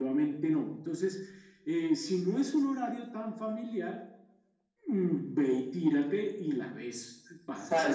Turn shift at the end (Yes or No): Yes